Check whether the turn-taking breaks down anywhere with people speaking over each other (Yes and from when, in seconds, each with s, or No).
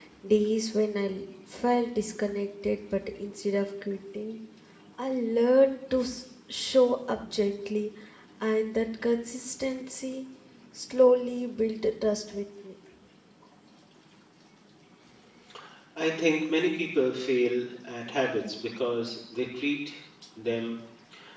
No